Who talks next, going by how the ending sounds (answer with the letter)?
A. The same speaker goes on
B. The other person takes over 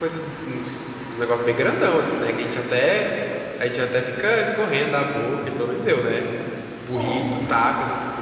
A